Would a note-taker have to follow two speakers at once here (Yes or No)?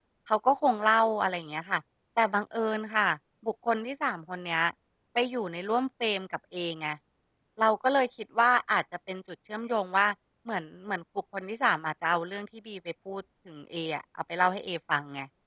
No